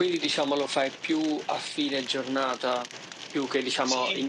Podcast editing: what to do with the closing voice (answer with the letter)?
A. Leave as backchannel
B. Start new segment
B